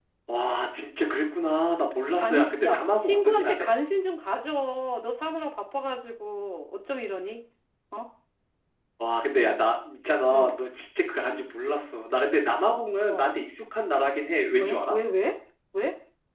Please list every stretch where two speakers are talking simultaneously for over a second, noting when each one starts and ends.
2.1-3.7

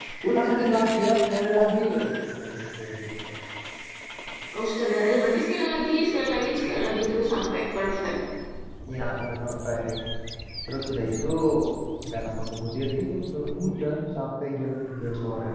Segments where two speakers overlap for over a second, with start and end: none

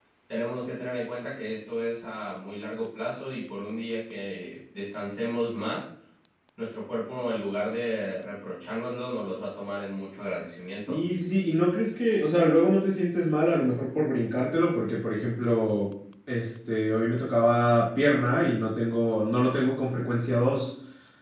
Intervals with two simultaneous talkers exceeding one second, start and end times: none

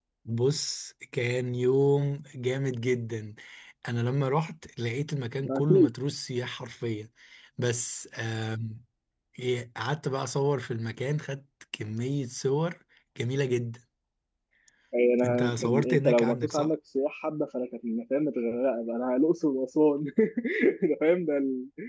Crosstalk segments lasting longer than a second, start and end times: 15.2-16.7

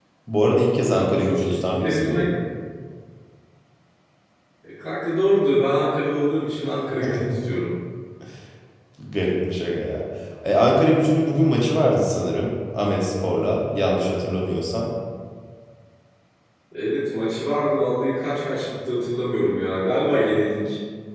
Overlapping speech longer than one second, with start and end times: 0.9-2.4

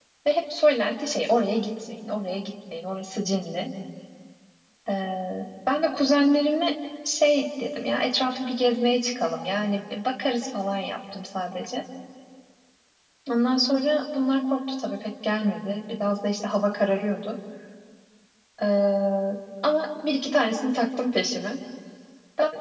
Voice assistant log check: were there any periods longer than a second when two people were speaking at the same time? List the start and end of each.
none

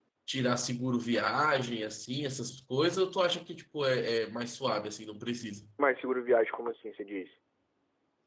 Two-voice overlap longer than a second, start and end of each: none

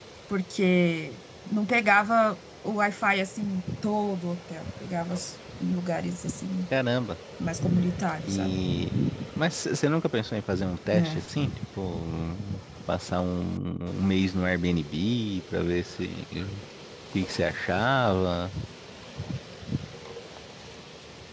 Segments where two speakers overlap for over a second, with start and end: none

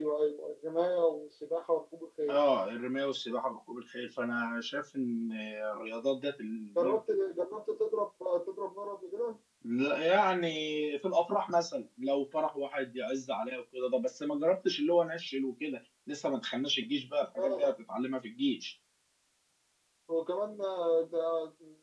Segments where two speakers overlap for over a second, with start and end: none

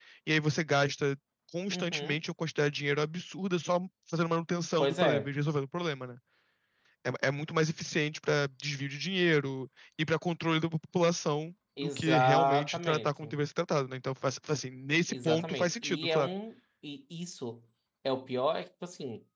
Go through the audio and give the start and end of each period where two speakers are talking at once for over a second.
11.8-13.3, 15.1-16.3

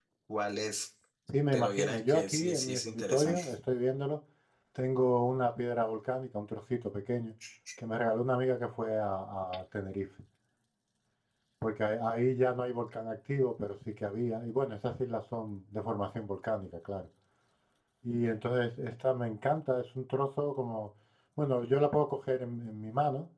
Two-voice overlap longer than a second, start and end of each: 1.5-3.4

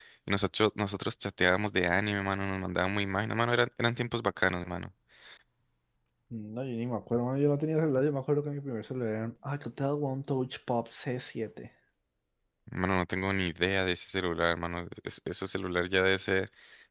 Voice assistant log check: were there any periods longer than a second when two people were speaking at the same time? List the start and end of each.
none

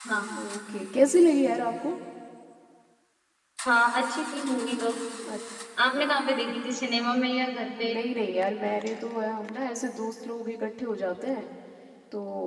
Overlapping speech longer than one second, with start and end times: none

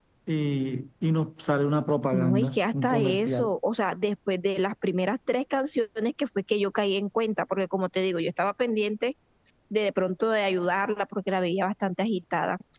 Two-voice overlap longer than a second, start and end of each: 2.1-3.5

